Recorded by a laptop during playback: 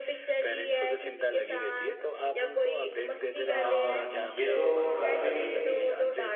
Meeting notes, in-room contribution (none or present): present